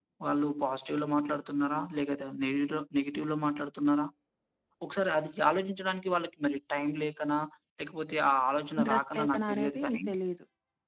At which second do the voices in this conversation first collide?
8.8 s

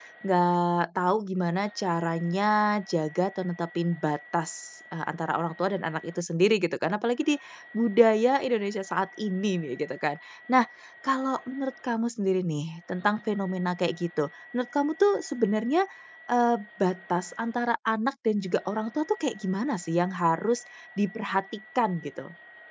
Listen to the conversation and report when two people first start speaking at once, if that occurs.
none

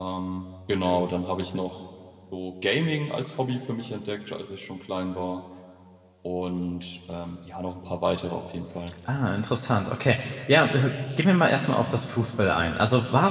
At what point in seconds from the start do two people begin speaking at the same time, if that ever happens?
none

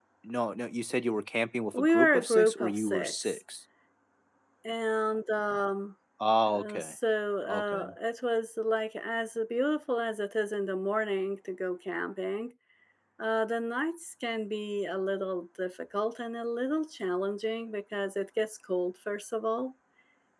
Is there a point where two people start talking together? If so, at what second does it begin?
1.7 s

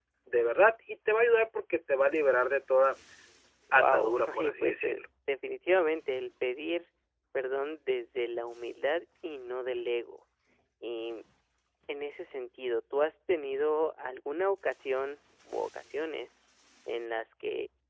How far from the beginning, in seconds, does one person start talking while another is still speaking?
3.7 s

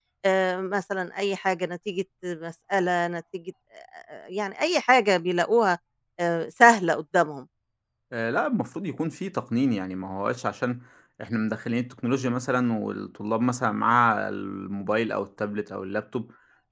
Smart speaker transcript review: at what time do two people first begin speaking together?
none

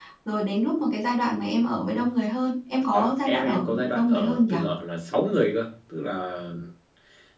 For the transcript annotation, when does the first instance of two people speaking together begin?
2.9 s

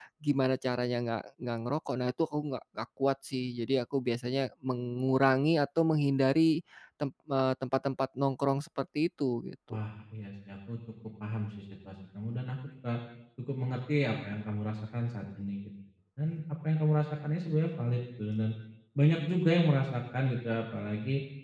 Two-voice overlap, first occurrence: none

